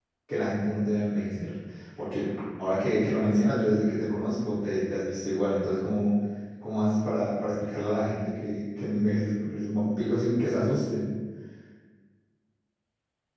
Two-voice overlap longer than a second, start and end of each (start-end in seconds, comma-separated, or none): none